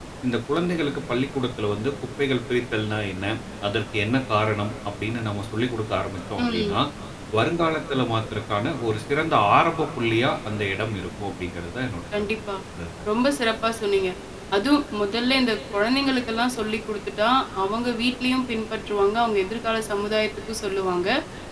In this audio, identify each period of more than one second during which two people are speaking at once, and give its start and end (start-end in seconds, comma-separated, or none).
none